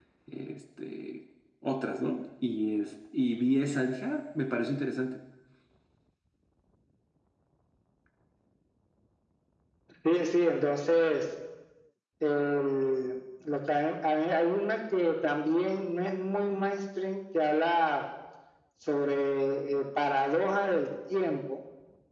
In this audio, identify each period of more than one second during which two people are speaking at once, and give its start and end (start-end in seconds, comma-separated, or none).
none